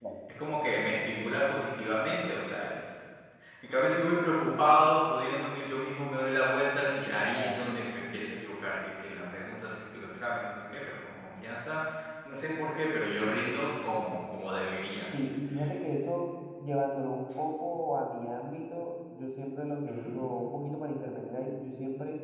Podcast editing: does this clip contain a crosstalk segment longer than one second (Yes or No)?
No